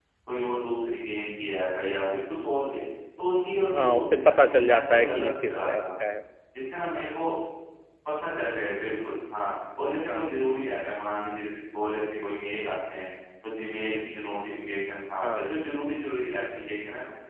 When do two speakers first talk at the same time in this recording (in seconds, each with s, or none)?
3.7 s